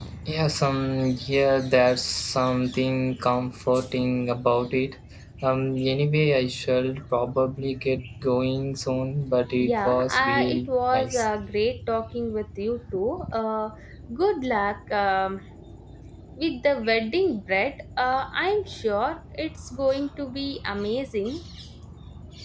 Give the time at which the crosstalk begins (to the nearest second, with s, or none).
10 s